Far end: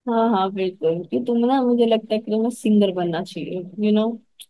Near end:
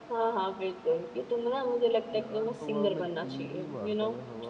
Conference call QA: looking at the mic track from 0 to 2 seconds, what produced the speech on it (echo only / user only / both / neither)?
echo only